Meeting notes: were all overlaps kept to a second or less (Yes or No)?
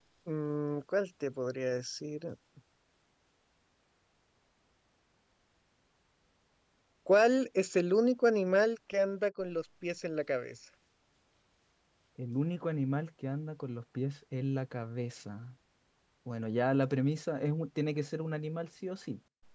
Yes